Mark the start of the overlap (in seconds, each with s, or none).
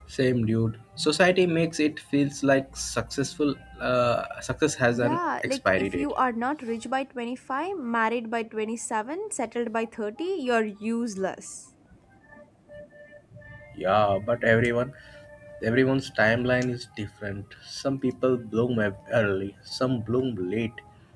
4.9 s